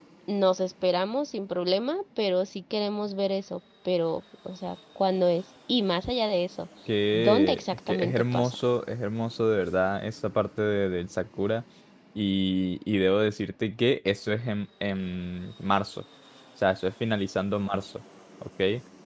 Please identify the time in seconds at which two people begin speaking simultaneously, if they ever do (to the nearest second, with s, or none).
7 s